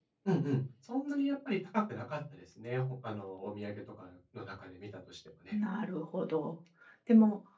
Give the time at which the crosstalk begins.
none

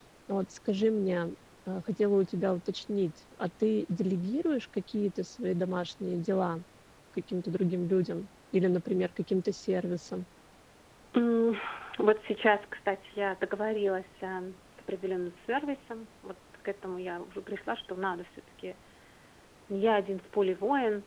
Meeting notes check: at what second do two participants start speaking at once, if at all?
none

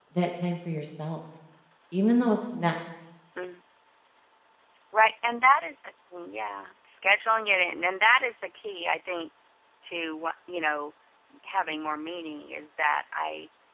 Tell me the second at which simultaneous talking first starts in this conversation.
none

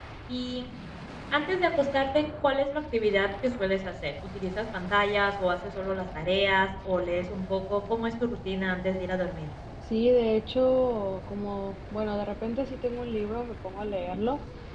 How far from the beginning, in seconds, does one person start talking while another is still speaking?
none

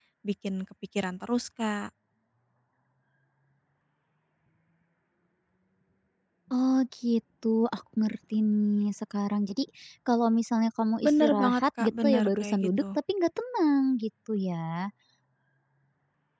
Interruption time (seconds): 11.0 s

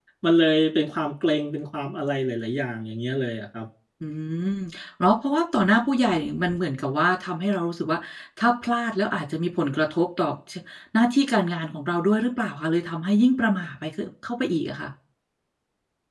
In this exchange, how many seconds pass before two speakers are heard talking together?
none

